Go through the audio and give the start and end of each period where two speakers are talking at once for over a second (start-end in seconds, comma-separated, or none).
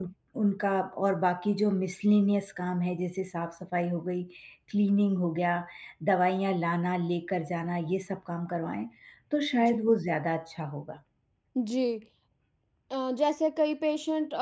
none